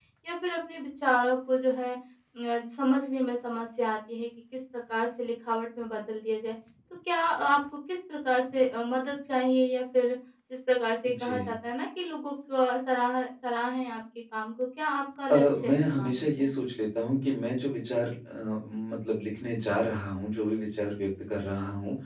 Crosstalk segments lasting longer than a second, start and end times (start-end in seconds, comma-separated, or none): 15.3-16.5